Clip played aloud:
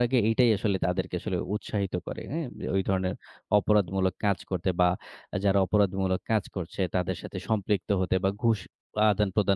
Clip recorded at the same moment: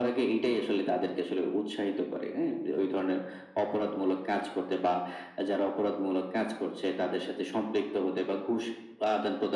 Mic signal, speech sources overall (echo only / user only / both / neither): echo only